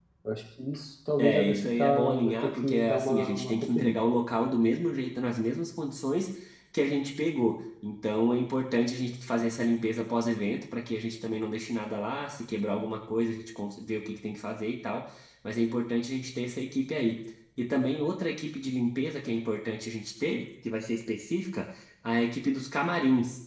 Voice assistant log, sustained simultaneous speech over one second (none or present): present